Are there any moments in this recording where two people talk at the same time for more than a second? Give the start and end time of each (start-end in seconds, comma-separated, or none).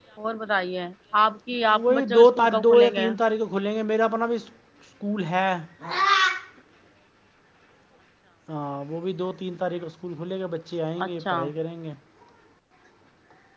1.8-3.1